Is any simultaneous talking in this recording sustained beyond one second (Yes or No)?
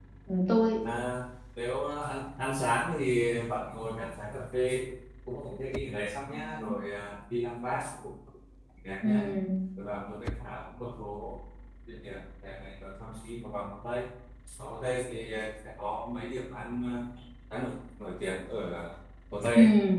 No